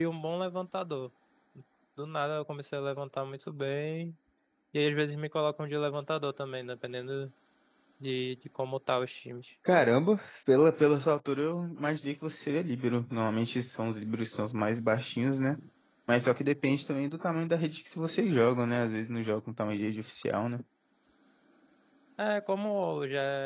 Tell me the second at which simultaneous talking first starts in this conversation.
none

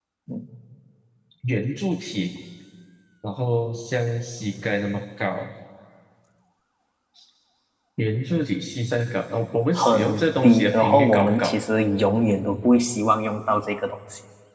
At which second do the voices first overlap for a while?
9.8 s

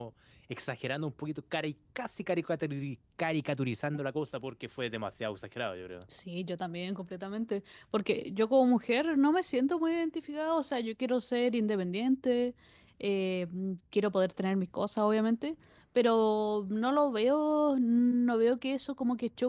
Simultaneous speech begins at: none

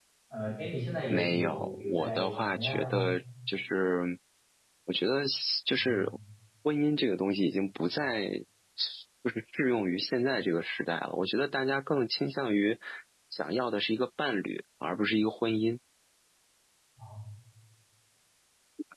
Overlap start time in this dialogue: 1.1 s

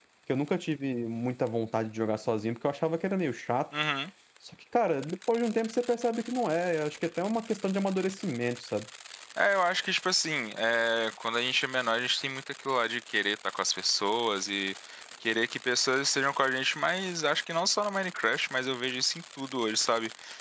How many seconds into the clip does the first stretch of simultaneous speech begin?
none

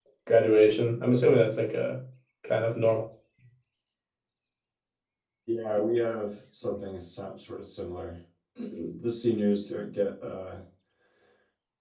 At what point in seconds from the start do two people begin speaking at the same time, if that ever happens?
none

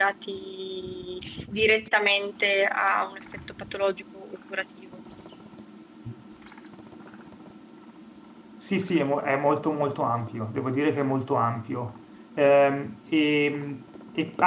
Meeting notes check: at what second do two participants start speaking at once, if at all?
none

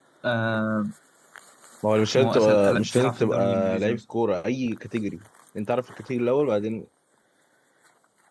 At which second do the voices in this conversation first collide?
2.1 s

